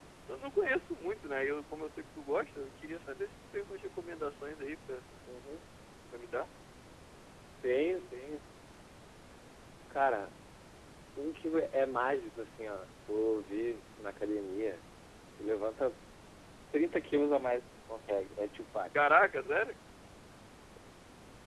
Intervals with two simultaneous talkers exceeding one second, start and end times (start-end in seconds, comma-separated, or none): none